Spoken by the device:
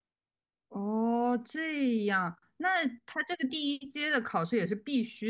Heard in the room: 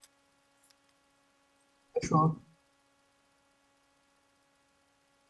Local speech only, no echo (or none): 说